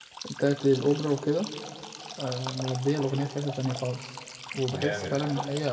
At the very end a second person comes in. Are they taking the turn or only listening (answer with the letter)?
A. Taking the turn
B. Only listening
B